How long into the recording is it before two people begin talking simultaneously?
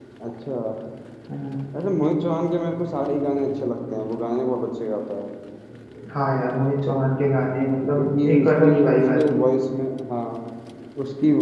8.0 s

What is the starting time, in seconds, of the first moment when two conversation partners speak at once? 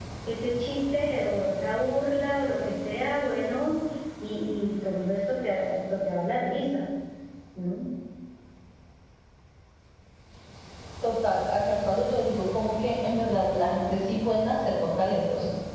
none

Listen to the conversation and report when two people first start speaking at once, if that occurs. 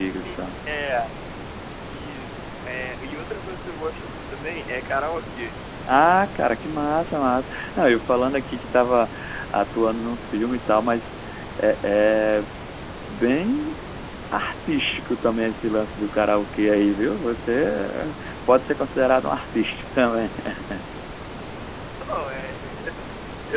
none

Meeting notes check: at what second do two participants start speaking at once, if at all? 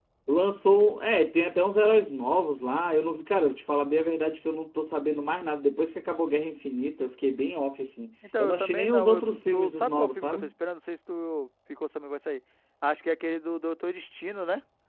8.2 s

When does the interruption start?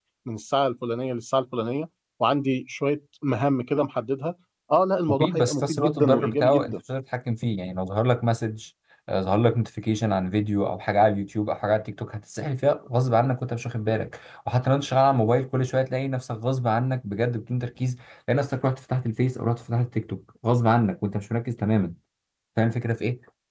5.1 s

